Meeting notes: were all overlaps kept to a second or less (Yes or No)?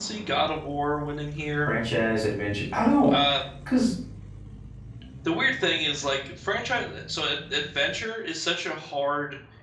Yes